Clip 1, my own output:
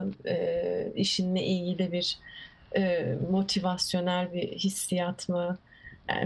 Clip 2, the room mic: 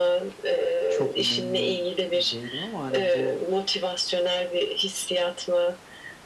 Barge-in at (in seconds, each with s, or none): 0.9 s